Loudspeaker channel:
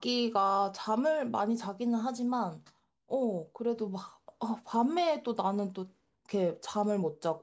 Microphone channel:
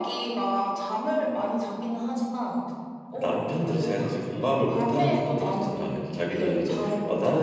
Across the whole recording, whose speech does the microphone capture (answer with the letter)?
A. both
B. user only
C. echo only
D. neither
A